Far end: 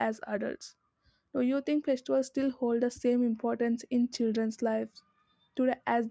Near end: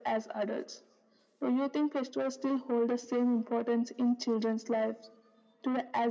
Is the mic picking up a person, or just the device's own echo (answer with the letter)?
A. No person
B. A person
A